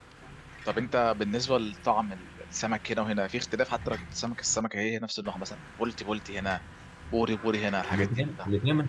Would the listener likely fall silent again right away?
No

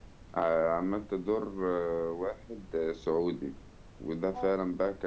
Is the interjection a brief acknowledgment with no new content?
Yes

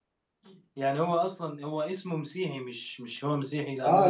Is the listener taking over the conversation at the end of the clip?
Yes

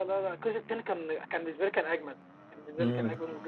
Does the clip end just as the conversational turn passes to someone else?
Yes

